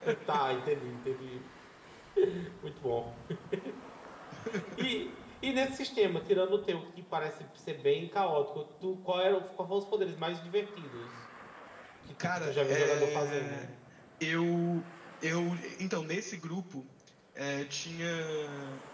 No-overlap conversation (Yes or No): No